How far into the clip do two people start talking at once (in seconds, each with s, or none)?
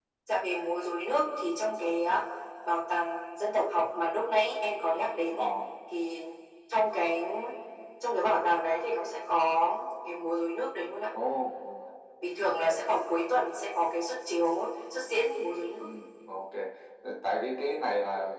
none